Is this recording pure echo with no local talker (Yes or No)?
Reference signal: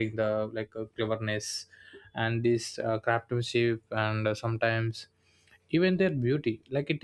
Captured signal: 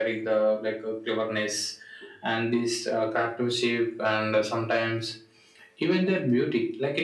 Yes